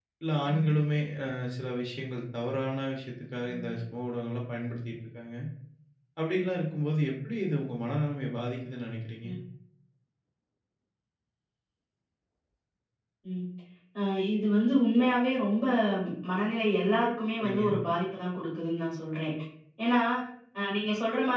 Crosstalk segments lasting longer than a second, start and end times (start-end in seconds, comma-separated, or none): none